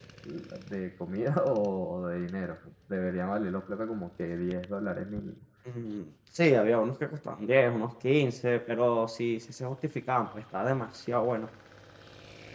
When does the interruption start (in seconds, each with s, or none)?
none